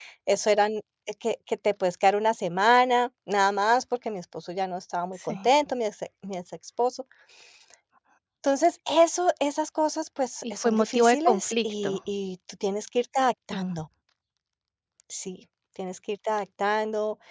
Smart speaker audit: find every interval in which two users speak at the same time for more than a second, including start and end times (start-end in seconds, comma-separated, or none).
10.4-12.0